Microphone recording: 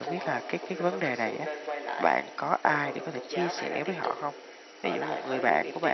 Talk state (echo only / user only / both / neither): both